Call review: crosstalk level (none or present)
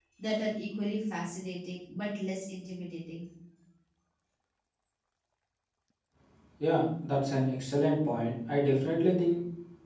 none